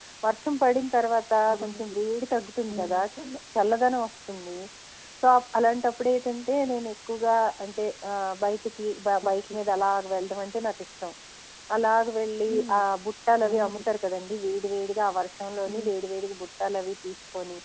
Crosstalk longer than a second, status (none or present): none